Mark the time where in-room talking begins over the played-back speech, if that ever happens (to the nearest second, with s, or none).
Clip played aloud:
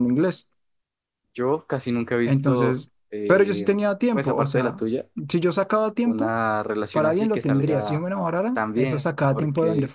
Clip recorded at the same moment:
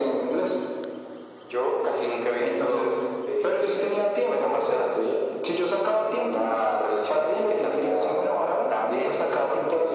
none